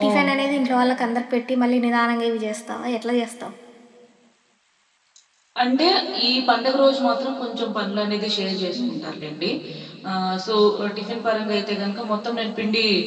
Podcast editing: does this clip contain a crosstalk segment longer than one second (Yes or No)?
No